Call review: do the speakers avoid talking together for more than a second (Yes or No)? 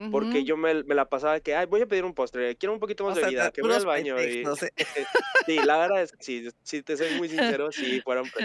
No